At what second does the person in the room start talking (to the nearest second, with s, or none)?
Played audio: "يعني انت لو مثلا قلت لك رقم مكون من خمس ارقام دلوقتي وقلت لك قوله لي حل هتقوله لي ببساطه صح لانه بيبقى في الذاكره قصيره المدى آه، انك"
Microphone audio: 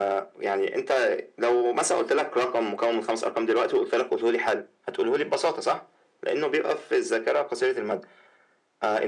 none